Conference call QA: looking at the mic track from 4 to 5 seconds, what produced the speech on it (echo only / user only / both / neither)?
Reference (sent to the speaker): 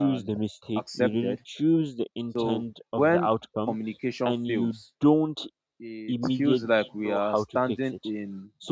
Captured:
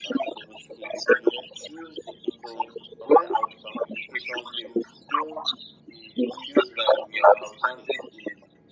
echo only